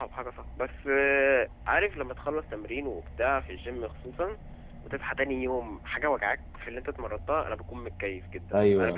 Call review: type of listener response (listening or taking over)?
taking over